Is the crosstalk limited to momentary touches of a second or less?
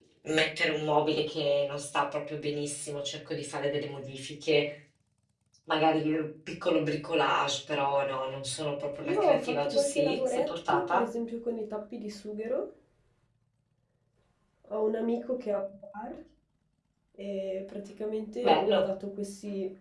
No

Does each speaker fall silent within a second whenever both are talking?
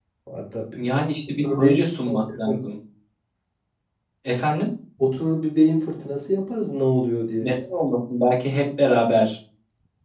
Yes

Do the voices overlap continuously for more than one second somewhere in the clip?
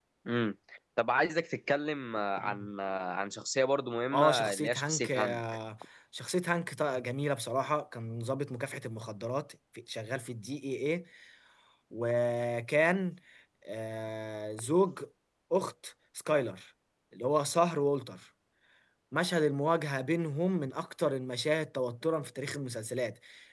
Yes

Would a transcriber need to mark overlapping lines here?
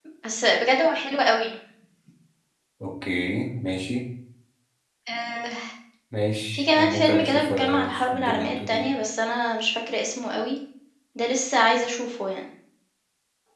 Yes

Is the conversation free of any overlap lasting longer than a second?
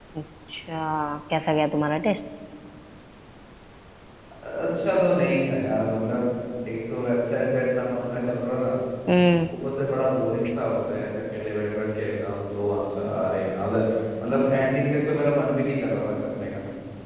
Yes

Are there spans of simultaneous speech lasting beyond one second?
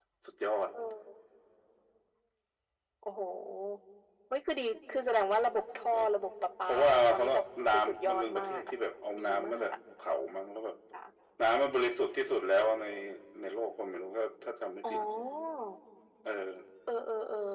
Yes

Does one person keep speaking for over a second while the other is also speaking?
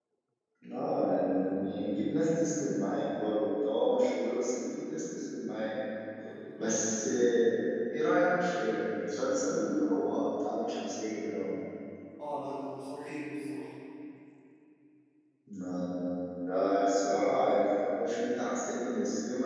No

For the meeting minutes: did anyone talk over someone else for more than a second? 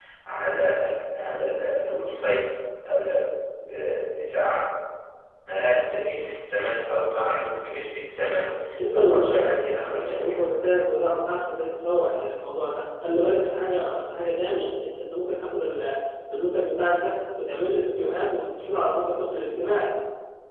Yes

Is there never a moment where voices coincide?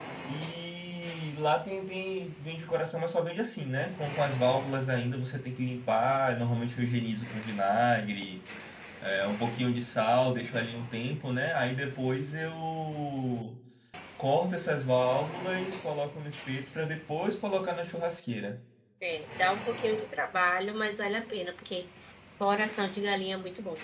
Yes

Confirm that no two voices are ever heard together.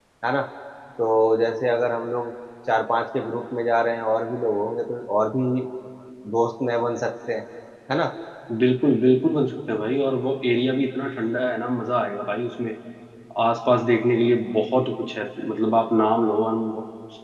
Yes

